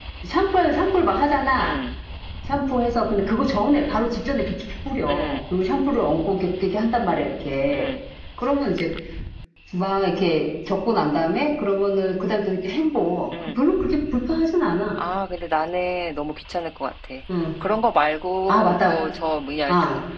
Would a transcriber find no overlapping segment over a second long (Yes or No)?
Yes